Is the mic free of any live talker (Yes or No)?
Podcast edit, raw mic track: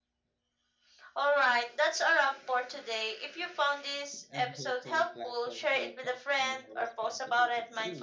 No